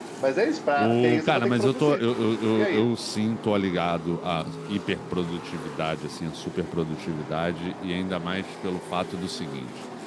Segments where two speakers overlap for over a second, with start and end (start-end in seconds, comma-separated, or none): 0.8-2.0